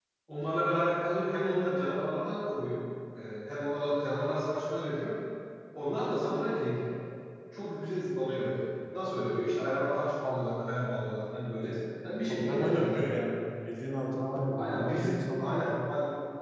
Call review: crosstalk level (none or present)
present